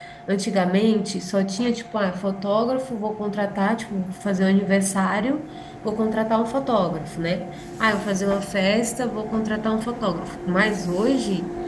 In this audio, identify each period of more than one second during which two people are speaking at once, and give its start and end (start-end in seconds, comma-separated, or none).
none